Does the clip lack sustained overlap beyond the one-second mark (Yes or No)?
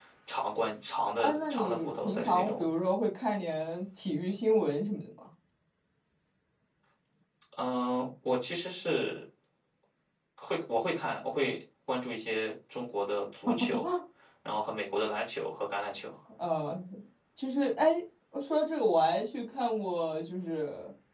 No